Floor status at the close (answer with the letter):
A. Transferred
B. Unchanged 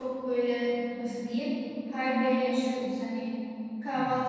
B